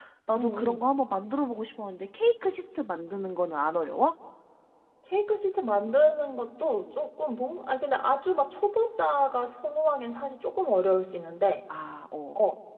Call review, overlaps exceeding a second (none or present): none